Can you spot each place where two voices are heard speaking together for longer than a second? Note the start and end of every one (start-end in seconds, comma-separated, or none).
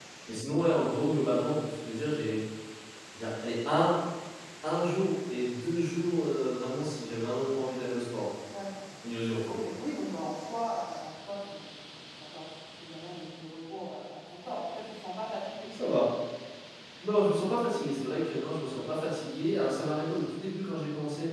none